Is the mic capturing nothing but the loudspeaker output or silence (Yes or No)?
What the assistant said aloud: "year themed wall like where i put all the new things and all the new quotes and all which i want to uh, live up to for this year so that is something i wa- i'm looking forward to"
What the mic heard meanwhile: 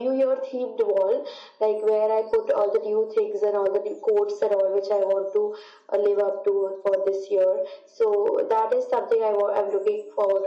Yes